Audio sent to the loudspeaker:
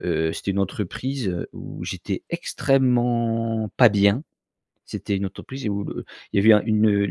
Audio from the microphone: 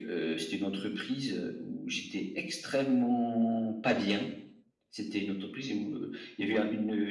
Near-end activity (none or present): none